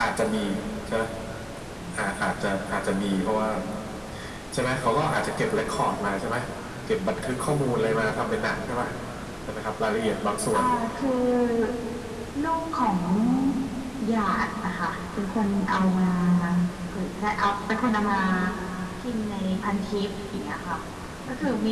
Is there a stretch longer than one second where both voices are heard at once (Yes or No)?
No